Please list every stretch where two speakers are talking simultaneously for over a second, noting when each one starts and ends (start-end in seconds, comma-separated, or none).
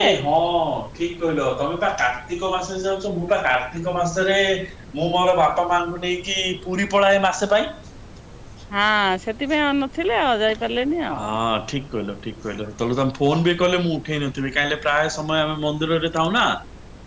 none